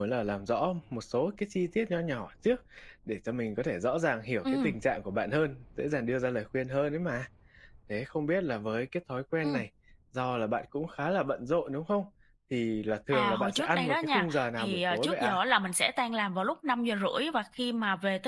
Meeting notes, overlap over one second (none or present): present